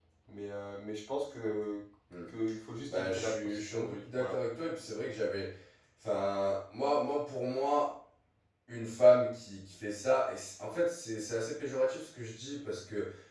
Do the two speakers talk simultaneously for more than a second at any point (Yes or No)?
Yes